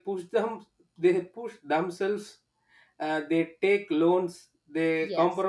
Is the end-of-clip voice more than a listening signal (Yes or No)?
No